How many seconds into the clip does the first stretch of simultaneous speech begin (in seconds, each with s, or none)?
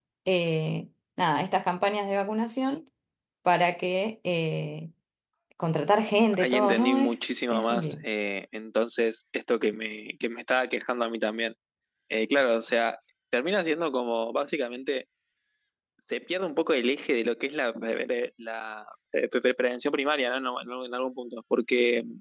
6.4 s